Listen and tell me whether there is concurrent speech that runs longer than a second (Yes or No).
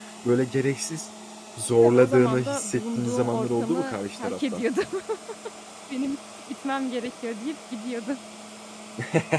Yes